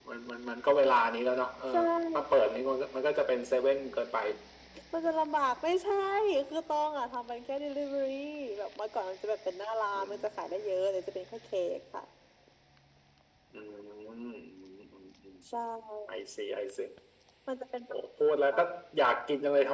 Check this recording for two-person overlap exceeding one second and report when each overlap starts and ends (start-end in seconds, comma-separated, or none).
none